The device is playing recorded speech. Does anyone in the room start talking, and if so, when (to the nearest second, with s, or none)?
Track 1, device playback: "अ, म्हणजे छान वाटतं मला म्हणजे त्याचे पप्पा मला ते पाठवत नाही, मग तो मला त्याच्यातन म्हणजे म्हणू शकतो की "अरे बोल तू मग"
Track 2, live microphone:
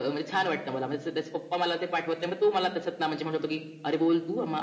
none